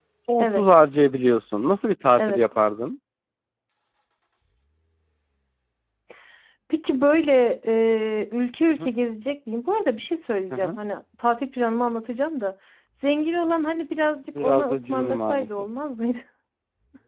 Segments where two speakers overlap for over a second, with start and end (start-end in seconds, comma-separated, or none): 14.4-15.7